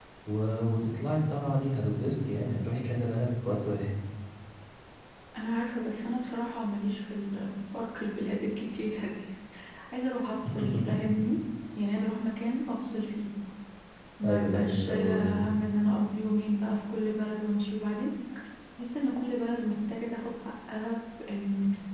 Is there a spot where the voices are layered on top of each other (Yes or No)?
Yes